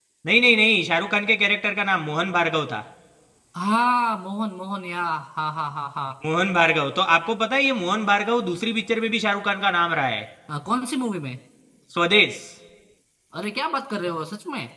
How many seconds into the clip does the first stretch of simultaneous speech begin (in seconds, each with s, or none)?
none